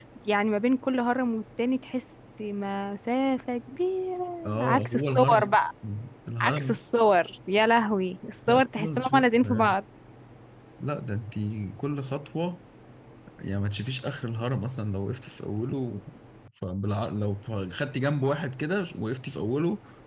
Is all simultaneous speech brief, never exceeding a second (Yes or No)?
No